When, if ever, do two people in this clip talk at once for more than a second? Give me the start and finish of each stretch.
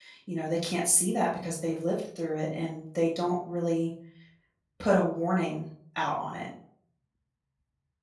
none

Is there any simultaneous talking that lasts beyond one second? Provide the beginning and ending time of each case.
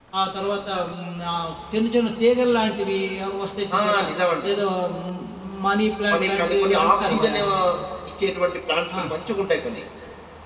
6.1-7.4

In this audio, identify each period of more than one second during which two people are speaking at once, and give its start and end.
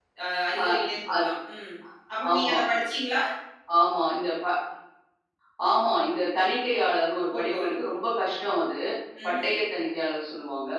none

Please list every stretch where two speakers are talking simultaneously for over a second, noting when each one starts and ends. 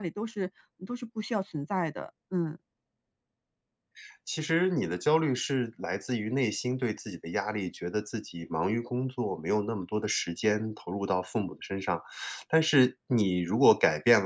none

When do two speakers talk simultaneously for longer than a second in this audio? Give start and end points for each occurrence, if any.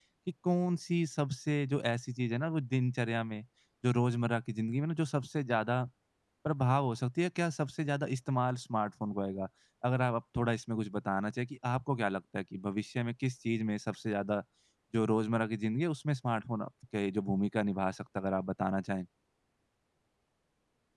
none

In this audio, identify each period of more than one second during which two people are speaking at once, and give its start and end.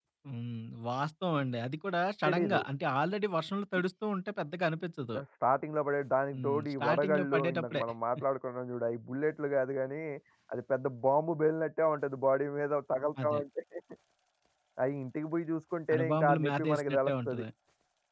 6.3-7.8, 15.9-17.4

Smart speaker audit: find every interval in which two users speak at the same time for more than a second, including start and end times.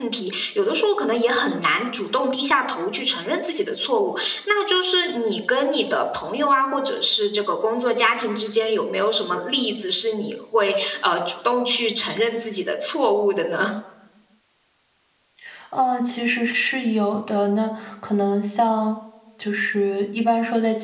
none

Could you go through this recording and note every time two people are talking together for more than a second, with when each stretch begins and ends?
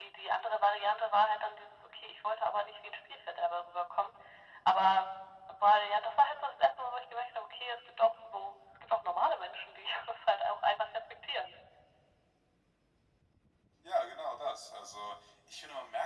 none

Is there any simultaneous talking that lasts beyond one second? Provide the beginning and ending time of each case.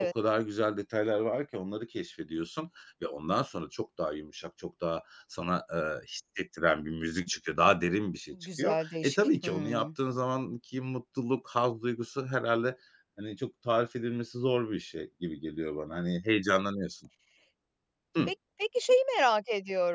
8.3-9.9

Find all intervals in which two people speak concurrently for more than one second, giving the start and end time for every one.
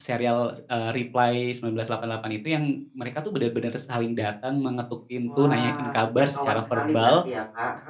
5.4-7.2

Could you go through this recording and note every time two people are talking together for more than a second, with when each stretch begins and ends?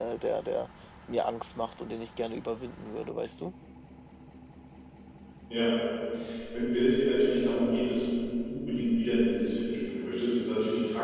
none

